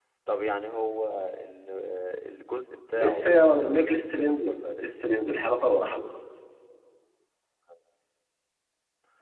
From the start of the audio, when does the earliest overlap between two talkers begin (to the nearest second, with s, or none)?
3 s